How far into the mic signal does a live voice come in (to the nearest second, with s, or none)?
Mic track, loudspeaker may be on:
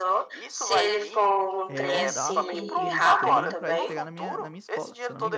2 s